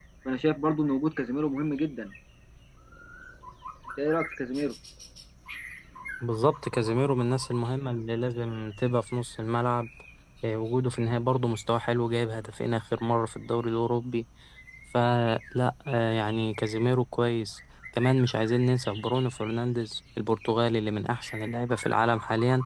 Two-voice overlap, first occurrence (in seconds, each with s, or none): none